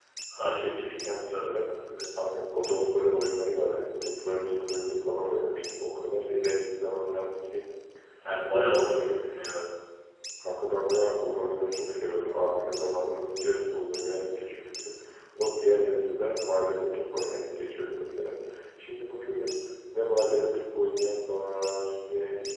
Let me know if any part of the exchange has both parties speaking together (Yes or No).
Yes